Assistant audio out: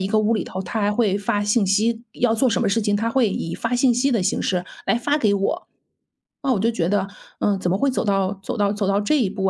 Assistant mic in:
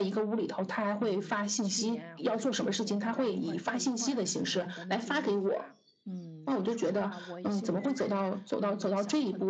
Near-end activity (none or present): present